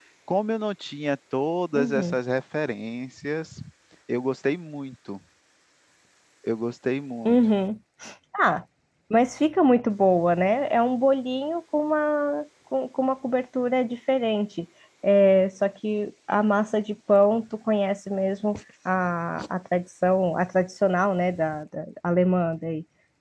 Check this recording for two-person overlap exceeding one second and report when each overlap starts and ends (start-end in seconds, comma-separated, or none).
none